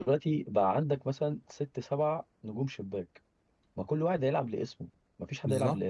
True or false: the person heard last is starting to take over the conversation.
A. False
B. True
B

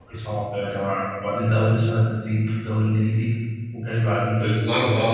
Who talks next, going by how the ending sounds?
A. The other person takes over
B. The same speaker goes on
A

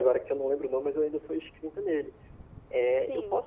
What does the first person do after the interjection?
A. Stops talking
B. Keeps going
B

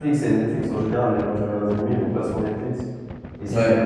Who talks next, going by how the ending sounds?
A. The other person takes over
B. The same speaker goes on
B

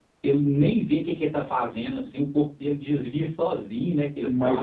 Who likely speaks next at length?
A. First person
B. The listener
B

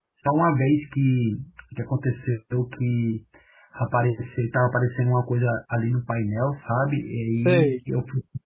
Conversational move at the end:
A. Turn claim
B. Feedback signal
B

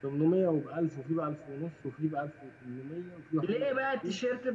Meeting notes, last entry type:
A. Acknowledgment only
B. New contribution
B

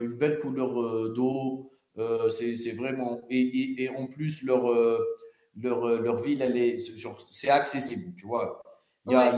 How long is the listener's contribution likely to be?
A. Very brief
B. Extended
A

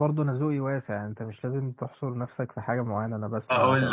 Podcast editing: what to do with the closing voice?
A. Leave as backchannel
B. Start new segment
B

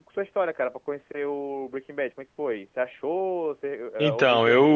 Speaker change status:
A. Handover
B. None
A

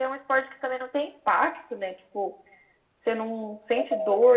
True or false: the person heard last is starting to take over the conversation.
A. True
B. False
B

